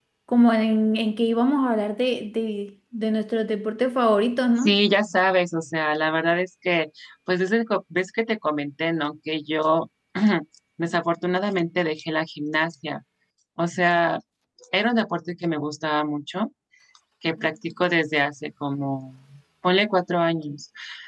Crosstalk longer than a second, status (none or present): none